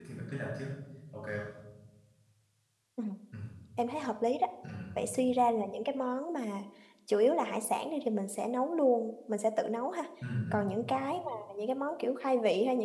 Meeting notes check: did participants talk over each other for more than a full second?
No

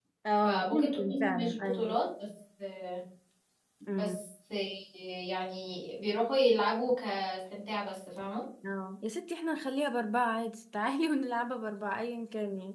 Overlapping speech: Yes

